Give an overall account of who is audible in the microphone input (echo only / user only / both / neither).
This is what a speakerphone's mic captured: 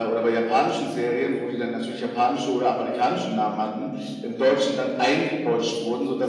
echo only